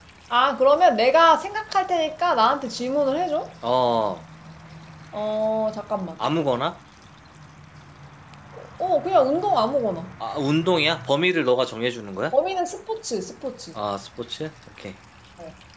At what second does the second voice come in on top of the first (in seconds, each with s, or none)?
none